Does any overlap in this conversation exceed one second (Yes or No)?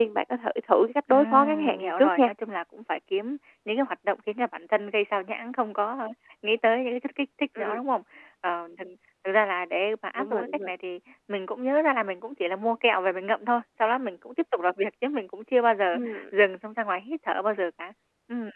Yes